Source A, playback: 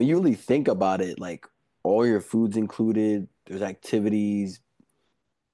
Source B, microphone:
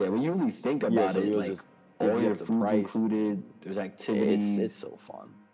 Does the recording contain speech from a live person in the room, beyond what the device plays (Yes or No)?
Yes